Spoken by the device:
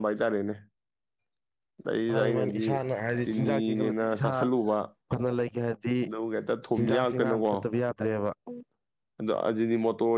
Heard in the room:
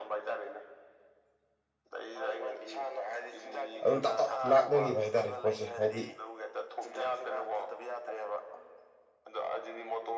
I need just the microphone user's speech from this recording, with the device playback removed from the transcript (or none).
ꯑꯗꯨꯝ ꯇꯞ ꯇꯞ ꯂꯥꯛꯅꯈꯤꯕ ꯍꯥꯏꯇꯥꯔꯦ ꯄꯣꯠꯁꯦ ꯍꯥꯏꯗꯤ